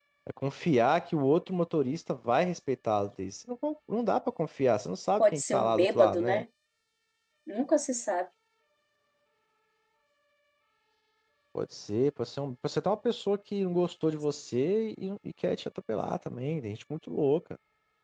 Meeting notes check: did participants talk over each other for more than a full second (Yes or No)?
Yes